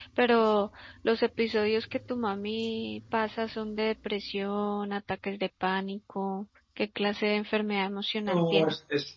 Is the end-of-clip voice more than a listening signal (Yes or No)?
Yes